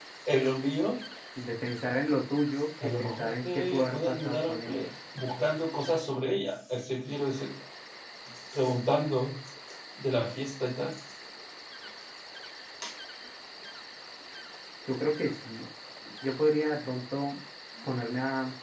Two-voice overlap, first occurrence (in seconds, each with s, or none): 2.8 s